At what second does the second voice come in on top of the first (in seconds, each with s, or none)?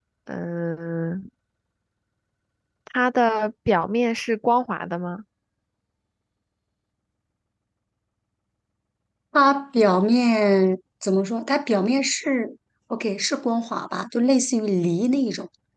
none